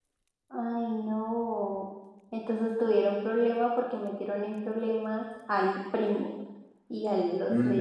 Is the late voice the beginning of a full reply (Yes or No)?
Yes